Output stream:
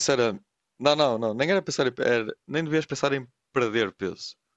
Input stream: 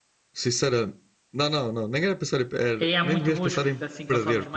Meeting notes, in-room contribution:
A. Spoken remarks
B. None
A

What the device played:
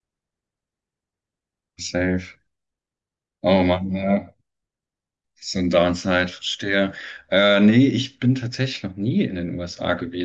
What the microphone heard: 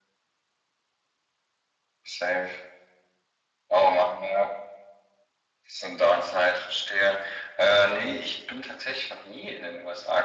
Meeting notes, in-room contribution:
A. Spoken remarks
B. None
B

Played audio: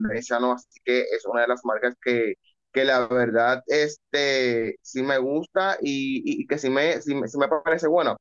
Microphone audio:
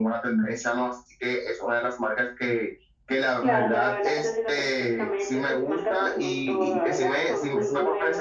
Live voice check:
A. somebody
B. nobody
A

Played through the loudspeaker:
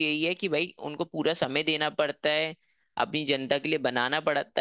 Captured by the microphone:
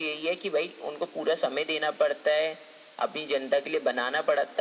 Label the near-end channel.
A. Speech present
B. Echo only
B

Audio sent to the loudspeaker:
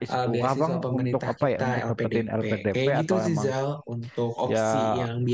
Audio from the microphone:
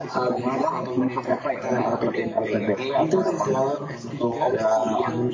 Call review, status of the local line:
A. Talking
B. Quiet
A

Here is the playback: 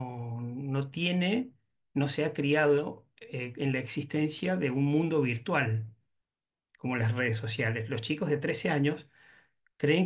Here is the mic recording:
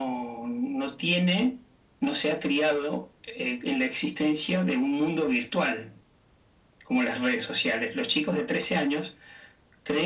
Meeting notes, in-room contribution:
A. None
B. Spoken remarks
A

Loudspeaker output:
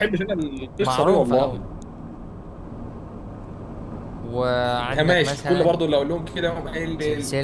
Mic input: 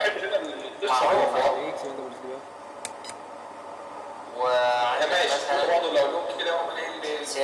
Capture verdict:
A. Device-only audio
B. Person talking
B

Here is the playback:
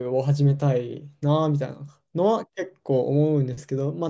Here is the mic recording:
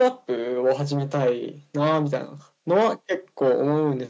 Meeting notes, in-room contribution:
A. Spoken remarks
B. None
B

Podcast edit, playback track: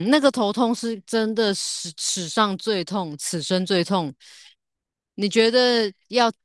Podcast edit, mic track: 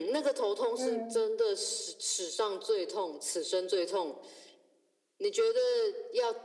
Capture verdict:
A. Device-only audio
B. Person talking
B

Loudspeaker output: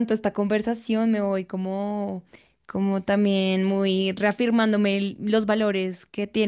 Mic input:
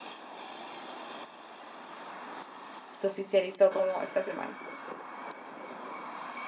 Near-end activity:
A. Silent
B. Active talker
B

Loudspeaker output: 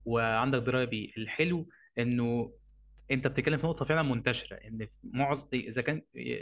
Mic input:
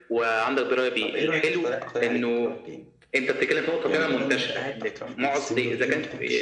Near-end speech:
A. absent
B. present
B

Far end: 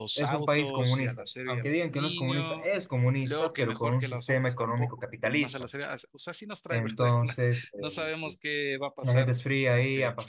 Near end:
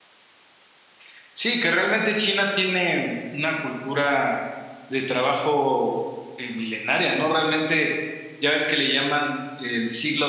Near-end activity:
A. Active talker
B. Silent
A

